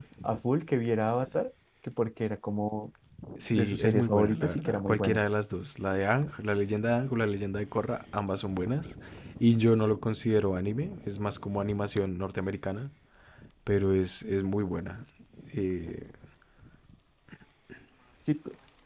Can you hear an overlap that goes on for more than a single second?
Yes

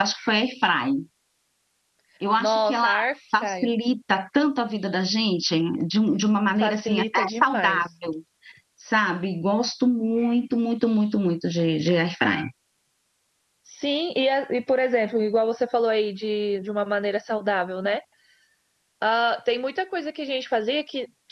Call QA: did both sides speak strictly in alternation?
No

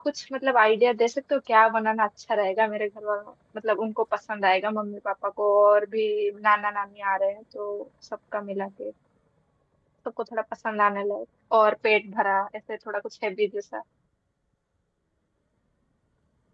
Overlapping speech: No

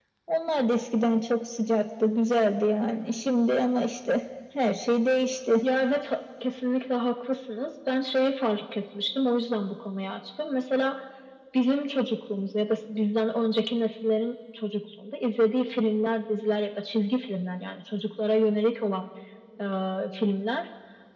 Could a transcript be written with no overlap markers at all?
Yes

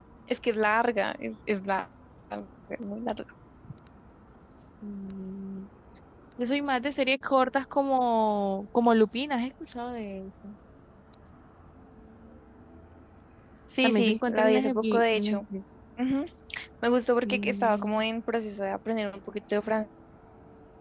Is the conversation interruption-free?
No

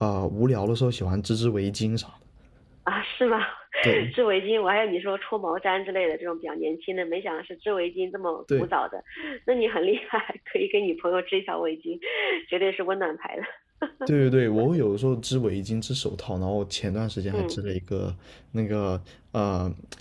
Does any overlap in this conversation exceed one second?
No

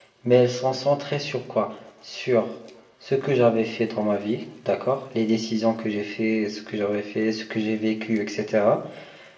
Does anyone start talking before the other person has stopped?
No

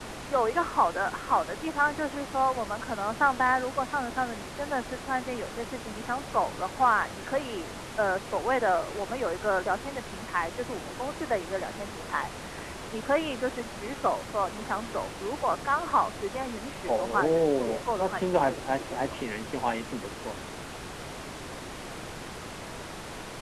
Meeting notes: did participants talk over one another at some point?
Yes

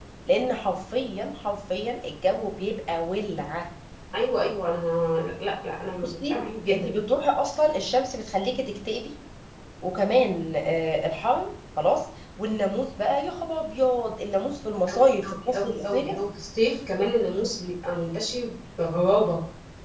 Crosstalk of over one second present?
Yes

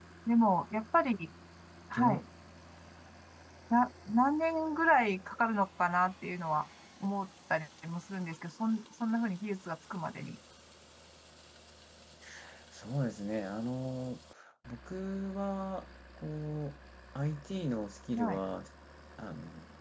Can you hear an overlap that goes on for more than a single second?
No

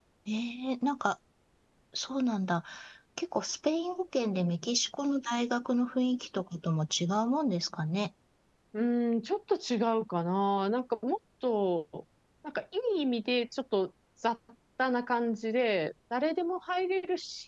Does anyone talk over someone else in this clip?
No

